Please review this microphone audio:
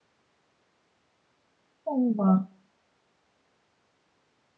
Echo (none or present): none